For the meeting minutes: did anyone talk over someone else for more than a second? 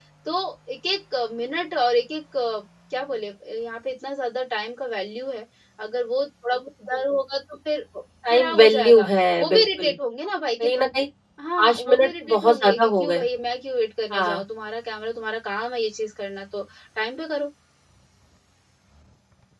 Yes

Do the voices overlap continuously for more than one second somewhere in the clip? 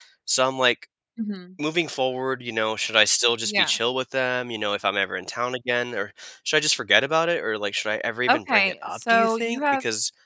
Yes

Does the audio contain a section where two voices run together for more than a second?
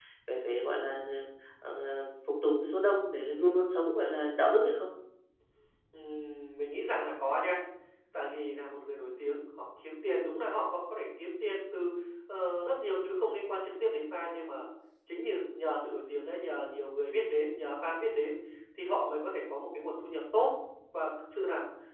No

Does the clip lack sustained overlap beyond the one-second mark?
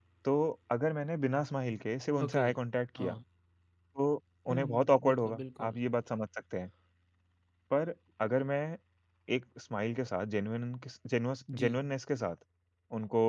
No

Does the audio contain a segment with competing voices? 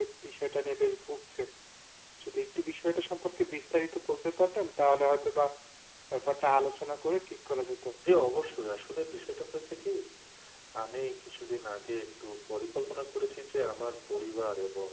No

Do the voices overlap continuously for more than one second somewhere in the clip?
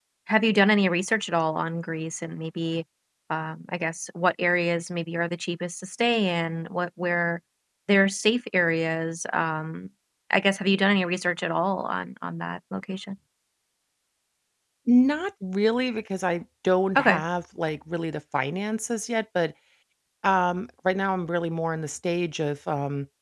No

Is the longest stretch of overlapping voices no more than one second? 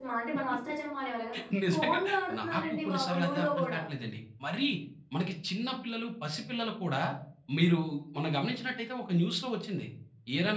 No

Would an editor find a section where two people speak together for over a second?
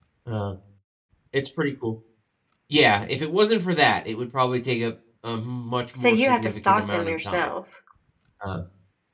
Yes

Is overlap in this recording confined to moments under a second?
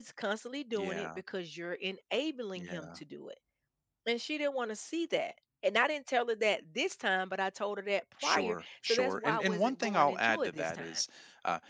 No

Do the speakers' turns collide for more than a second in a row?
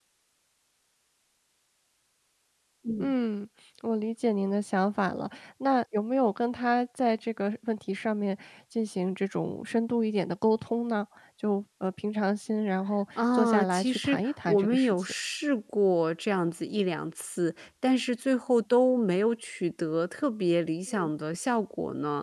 Yes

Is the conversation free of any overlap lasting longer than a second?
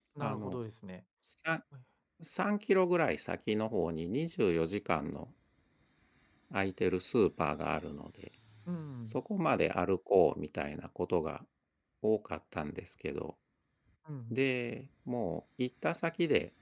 Yes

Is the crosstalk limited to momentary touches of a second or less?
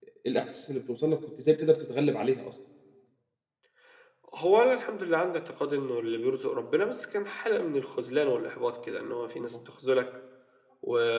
Yes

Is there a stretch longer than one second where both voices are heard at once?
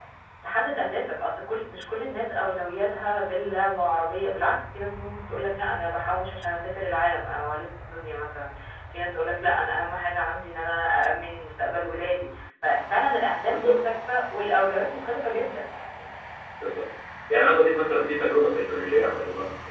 No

